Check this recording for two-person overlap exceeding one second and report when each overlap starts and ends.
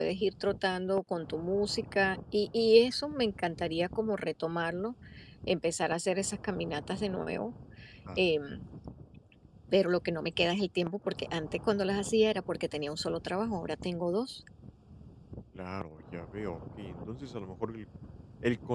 none

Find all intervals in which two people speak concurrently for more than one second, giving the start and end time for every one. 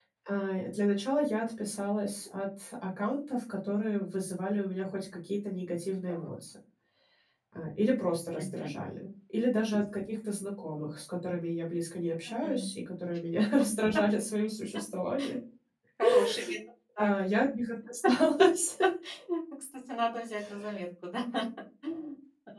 none

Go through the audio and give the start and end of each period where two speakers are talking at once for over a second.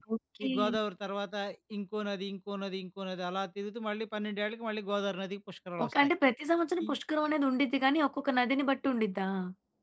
none

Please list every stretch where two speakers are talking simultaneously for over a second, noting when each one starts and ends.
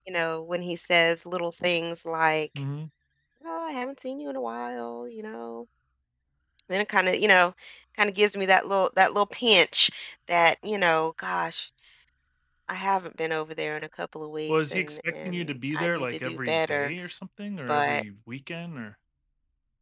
14.5-16.9

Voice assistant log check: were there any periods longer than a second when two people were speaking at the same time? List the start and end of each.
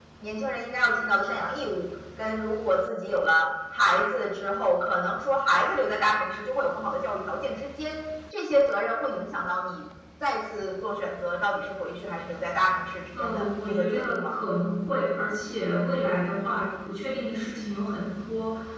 13.1-14.4

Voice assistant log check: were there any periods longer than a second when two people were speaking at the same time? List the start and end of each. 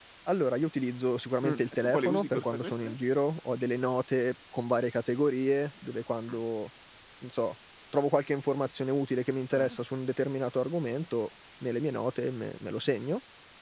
1.5-2.9

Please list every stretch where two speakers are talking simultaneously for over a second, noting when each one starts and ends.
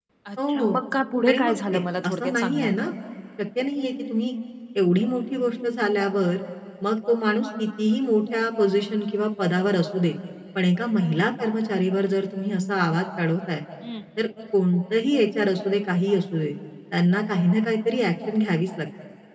1.3-2.8

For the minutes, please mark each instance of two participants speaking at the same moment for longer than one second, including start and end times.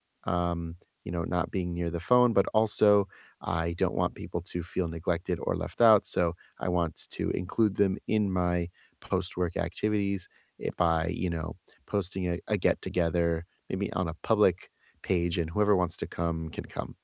none

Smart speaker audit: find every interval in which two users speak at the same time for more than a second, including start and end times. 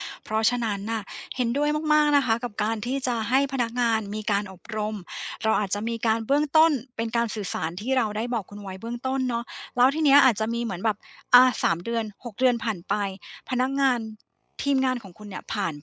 none

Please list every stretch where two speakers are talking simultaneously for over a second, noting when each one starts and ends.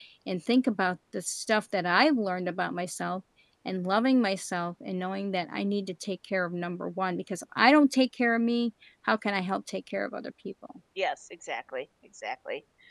none

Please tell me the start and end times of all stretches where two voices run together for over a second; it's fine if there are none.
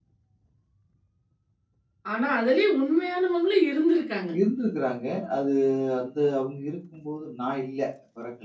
none

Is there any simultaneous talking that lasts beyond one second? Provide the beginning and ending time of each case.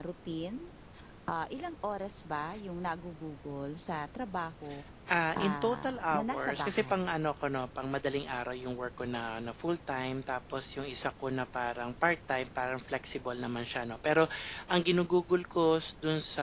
5.4-7.1

